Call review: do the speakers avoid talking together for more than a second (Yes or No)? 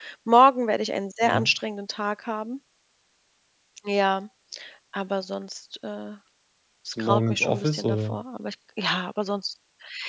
No